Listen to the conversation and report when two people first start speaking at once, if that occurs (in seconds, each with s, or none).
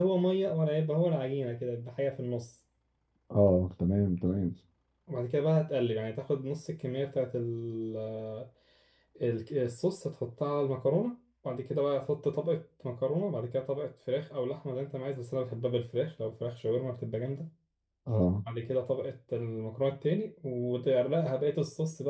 none